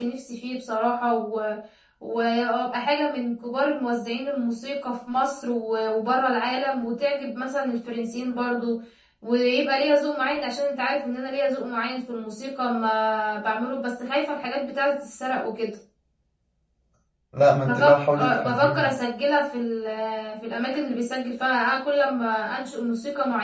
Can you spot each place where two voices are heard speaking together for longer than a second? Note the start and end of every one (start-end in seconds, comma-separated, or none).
17.6-19.0